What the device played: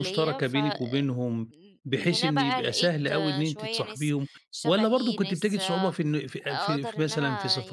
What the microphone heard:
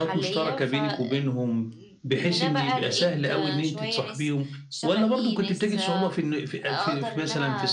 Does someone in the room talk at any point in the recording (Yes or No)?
No